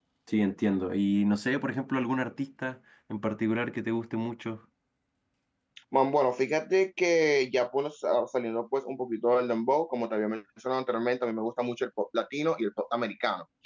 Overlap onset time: none

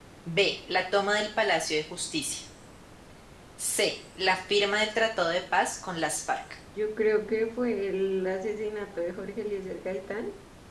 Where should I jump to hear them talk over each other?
none

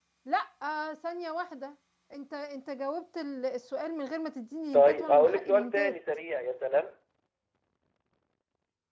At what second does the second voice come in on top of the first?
4.7 s

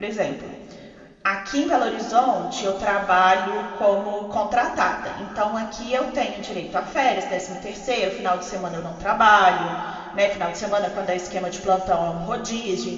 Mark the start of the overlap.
none

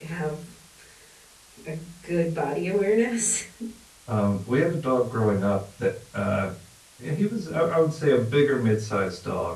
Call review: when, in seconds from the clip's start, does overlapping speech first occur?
none

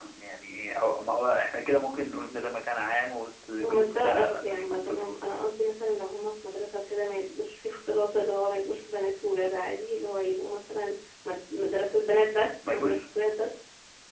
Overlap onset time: 3.6 s

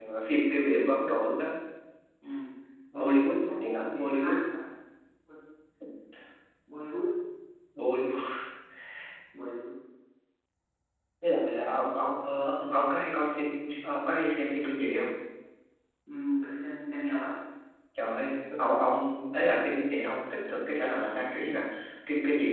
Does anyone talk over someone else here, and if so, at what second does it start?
2.9 s

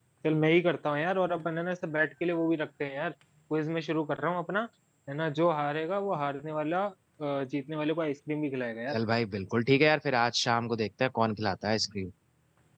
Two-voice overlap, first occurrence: none

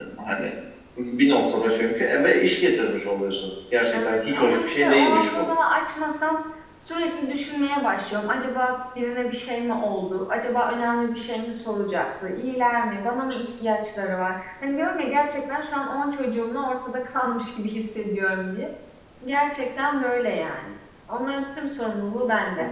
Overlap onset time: 3.9 s

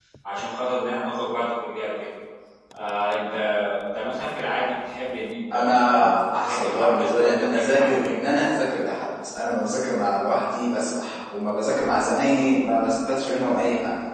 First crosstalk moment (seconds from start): 5.5 s

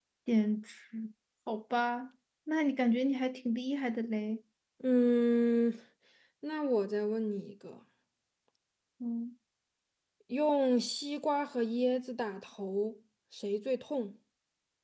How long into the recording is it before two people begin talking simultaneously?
none

